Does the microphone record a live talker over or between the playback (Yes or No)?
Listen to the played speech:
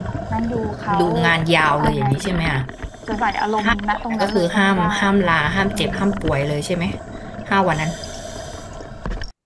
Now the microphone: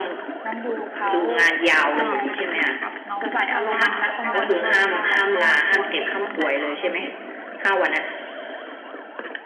Yes